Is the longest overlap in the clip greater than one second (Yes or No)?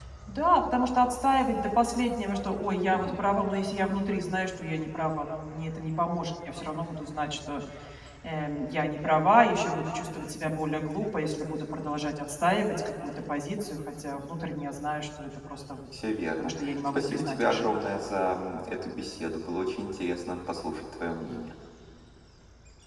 Yes